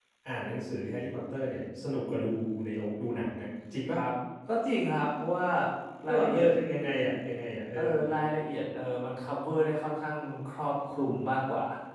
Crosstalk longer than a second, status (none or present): none